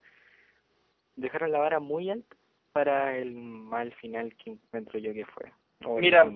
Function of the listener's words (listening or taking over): listening